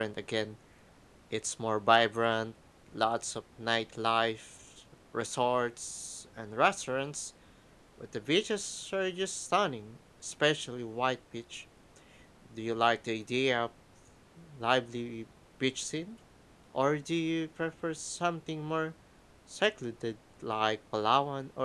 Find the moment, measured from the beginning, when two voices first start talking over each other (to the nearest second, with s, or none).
none